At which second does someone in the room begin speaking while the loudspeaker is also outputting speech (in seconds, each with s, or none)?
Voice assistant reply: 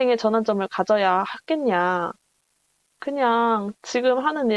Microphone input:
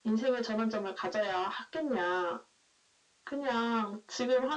none